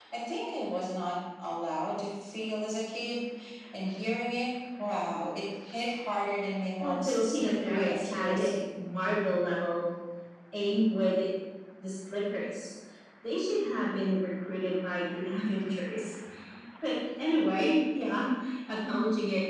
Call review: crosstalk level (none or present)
present